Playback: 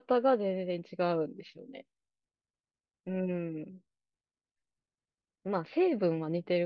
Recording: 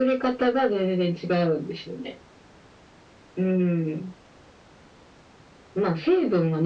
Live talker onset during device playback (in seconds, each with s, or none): none